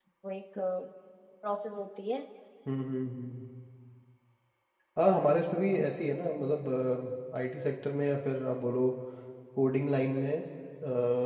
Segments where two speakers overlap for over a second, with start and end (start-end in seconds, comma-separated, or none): none